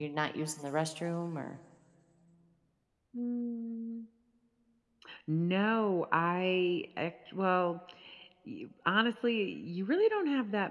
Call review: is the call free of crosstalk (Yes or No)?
Yes